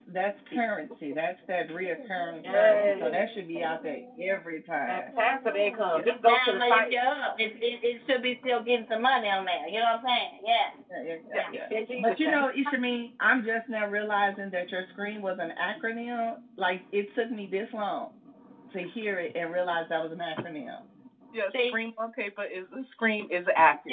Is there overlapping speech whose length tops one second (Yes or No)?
Yes